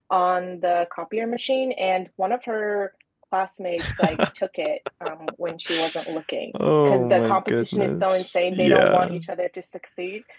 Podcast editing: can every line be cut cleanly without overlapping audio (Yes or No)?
No